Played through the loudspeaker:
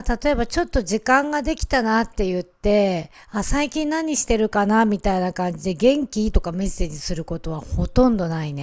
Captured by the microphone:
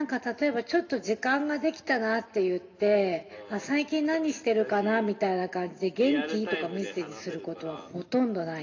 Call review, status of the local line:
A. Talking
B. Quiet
A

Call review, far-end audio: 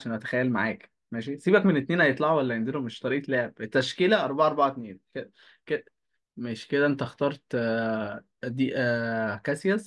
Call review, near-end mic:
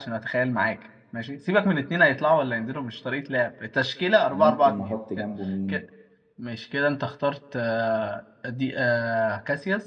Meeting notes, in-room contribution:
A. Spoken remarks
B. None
A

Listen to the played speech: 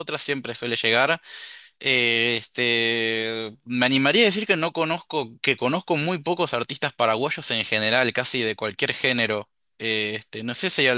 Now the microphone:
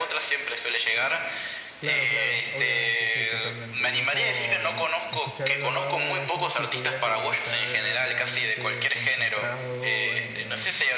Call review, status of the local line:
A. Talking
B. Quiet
A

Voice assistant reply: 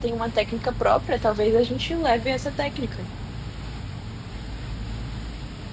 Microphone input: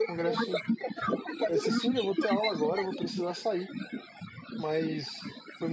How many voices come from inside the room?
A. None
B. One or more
B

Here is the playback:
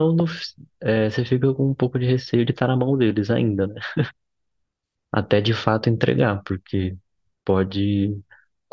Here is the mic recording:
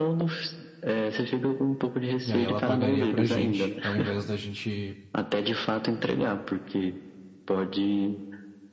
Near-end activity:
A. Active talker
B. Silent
A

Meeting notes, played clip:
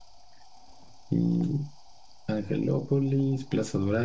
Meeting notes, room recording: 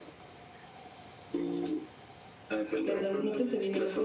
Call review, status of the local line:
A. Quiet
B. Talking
B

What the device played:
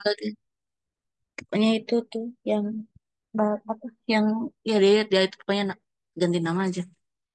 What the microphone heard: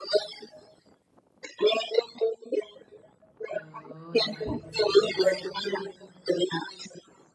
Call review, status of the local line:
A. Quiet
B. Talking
B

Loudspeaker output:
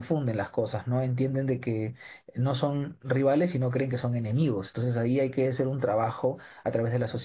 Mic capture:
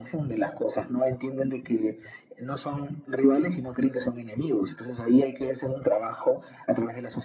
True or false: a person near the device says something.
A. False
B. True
A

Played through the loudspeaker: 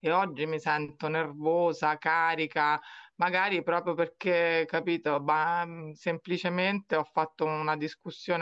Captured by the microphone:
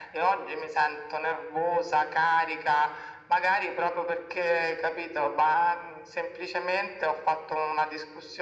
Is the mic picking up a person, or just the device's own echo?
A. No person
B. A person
A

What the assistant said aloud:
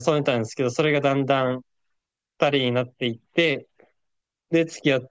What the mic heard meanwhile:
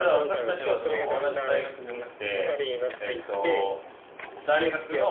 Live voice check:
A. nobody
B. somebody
B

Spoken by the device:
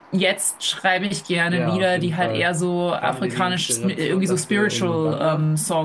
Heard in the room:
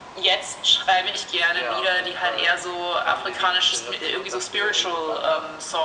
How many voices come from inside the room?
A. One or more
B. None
B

